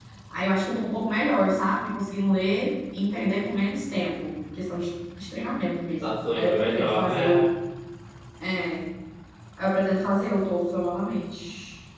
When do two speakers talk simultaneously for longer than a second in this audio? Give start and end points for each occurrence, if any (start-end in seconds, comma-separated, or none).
6.0-7.2